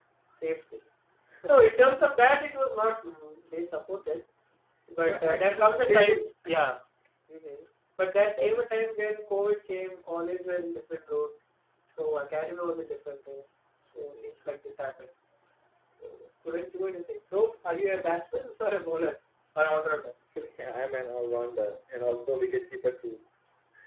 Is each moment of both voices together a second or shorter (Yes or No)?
No